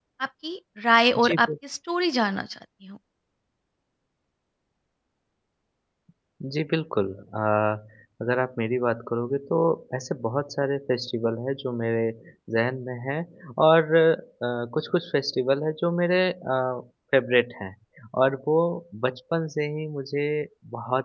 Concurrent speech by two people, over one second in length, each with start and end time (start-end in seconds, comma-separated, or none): none